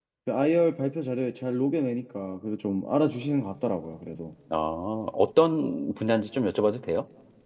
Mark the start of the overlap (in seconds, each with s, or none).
none